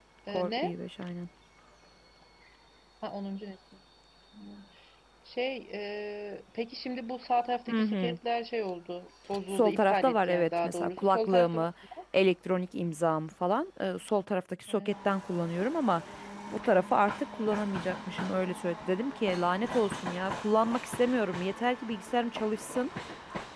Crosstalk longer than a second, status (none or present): present